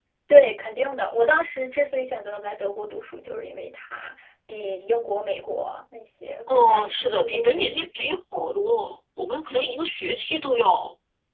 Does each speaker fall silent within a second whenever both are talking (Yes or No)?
No